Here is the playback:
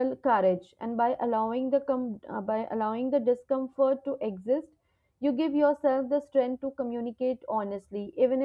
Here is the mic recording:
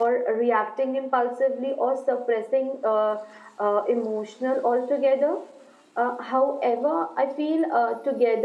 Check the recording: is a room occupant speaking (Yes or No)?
Yes